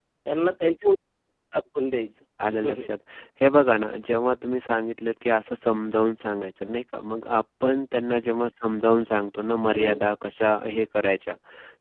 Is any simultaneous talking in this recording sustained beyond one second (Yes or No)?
No